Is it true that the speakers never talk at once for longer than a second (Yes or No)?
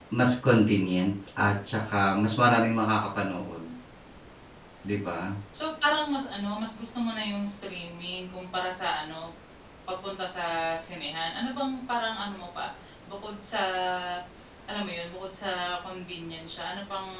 Yes